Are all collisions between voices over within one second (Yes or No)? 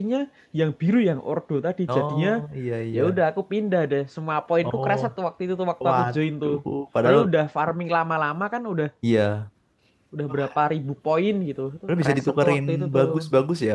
No